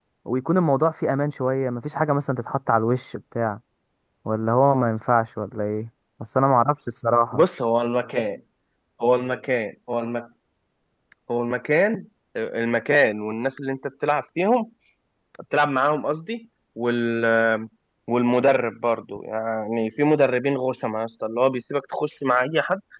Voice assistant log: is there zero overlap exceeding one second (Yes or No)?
Yes